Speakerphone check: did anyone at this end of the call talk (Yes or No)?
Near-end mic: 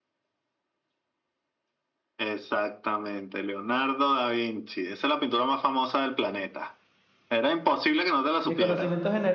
Yes